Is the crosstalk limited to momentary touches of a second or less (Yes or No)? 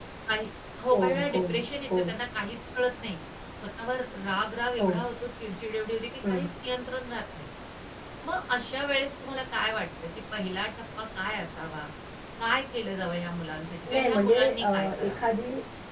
No